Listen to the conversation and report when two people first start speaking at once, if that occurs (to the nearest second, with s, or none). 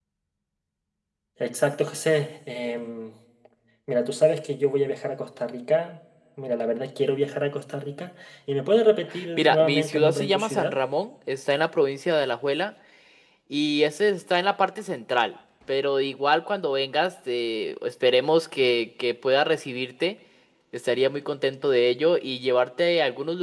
9 s